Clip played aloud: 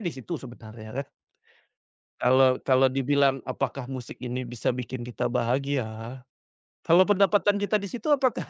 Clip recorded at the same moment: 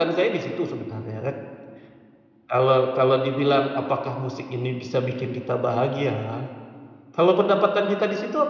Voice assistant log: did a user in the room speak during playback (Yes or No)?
No